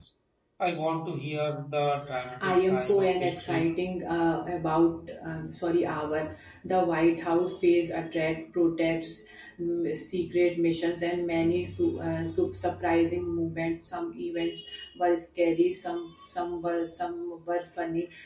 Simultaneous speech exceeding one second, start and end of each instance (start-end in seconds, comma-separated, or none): 2.4-3.7